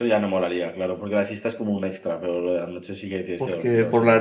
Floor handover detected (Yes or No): Yes